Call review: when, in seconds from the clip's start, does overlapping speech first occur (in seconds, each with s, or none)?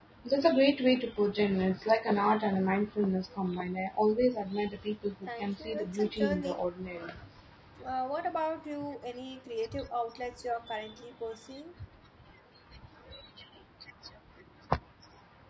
5.3 s